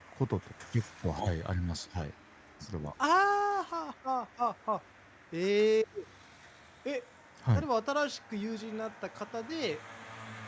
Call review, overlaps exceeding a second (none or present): none